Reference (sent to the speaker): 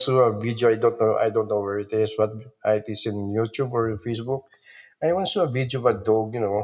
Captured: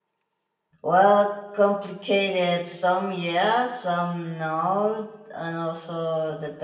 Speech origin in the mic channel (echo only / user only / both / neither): user only